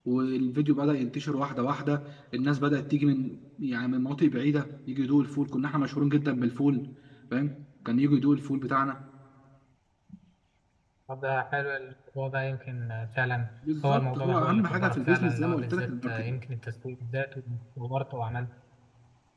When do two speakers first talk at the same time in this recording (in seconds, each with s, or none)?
13.6 s